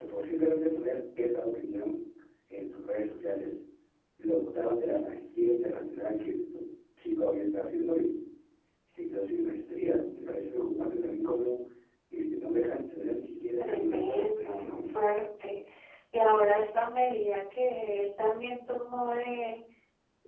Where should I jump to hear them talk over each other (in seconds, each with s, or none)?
13.6 s